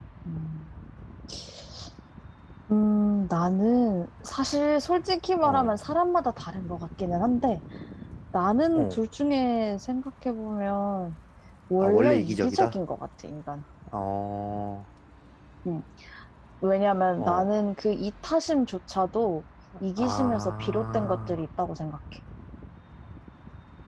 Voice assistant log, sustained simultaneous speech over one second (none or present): present